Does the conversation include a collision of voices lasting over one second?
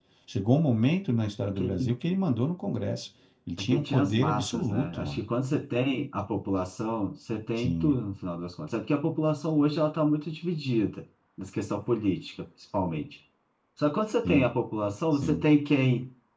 Yes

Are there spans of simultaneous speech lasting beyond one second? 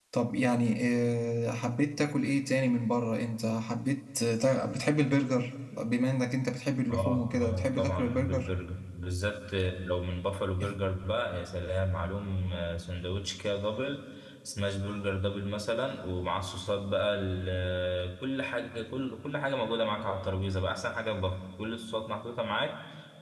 Yes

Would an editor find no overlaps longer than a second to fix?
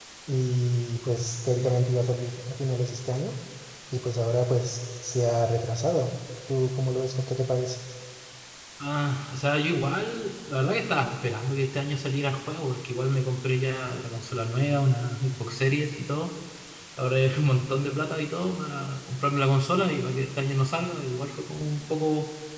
Yes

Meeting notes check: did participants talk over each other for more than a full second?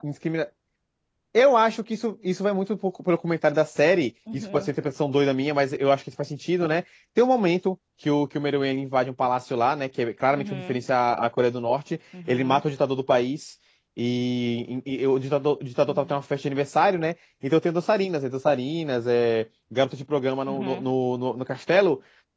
No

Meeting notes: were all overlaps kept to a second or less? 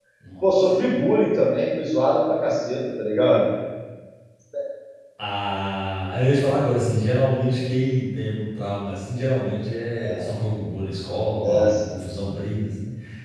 Yes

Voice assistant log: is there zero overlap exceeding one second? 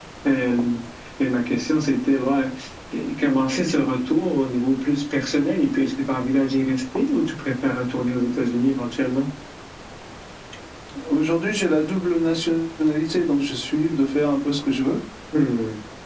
Yes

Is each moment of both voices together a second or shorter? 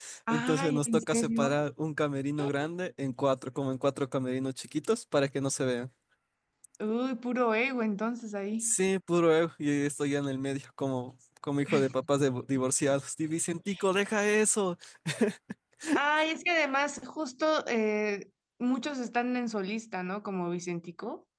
No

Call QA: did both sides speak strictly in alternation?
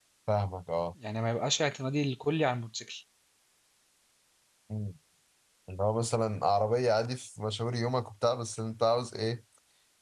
Yes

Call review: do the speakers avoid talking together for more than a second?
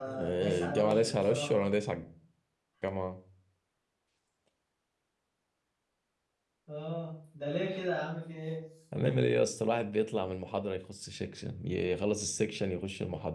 No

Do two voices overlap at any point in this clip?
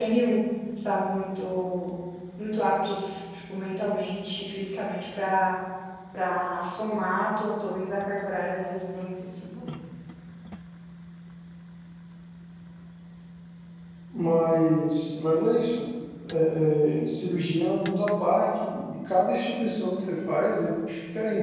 No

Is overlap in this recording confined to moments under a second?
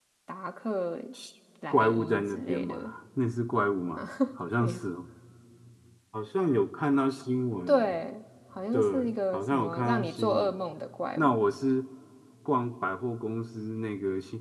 No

